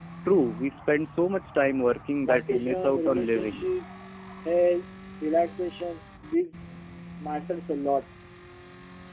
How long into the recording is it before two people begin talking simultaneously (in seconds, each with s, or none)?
2.2 s